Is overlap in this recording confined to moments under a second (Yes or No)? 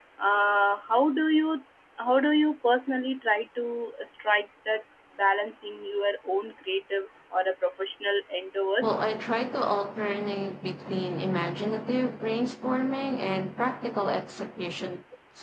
Yes